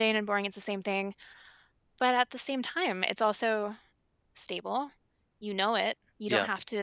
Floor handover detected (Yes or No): No